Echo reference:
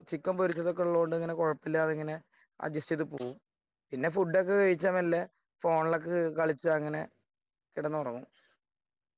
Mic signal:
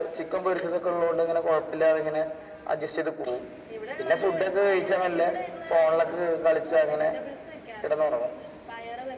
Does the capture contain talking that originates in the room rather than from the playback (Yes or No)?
Yes